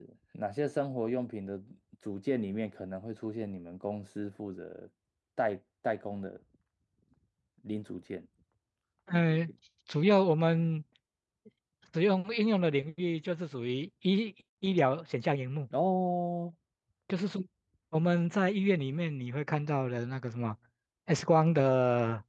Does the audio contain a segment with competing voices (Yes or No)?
No